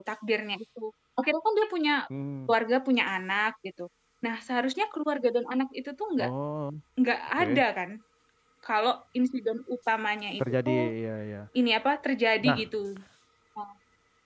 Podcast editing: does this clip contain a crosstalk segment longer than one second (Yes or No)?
No